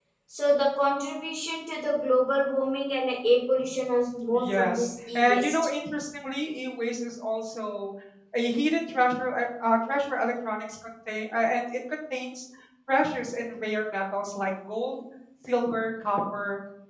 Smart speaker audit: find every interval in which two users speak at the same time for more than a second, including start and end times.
4.3-5.6

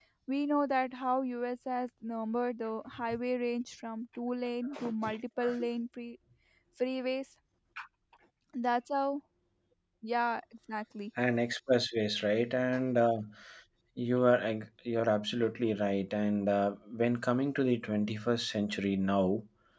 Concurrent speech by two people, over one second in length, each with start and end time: none

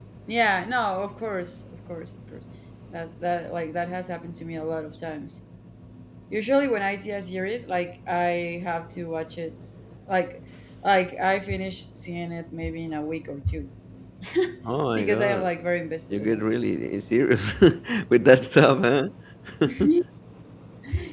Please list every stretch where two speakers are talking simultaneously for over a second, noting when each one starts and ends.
none

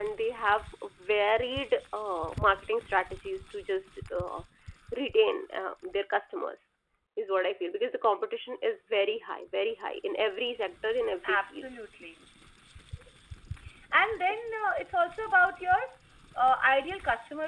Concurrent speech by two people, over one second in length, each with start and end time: none

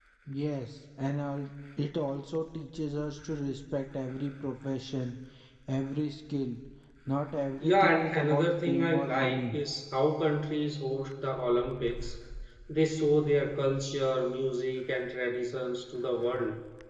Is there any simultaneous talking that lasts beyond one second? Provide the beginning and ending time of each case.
7.6-9.6

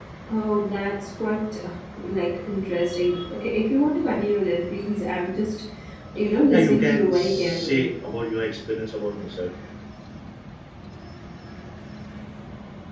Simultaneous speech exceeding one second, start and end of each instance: 6.5-7.9

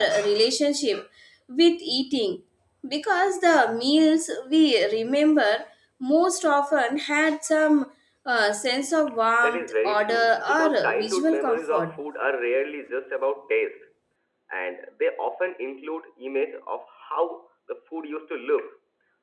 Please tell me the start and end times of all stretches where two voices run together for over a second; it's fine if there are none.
9.4-11.9

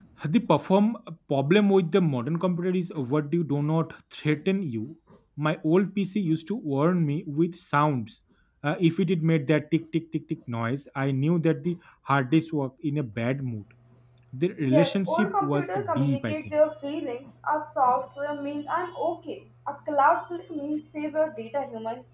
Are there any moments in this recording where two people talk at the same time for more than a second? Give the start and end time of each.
14.7-16.4

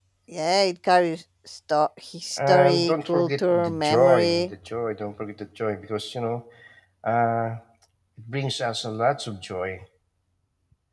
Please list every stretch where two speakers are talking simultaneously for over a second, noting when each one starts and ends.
2.4-4.5

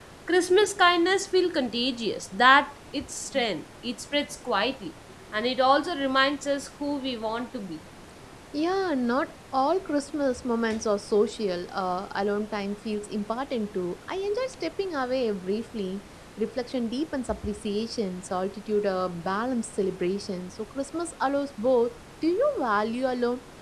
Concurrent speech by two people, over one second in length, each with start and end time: none

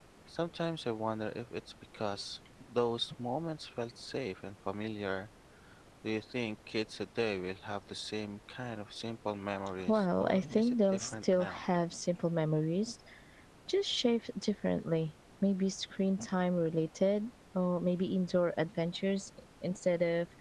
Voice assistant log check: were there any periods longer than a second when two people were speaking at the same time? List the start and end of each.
9.9-11.6

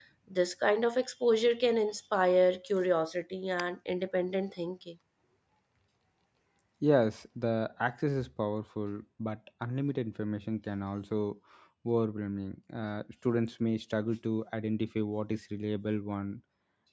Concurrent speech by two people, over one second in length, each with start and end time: none

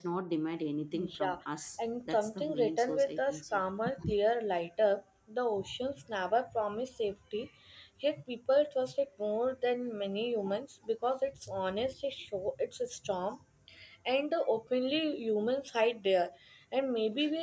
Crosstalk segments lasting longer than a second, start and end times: 2.1-3.6

